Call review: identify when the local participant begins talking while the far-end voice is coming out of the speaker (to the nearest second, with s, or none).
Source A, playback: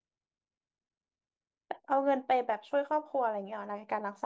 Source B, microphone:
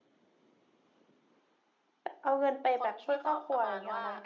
3 s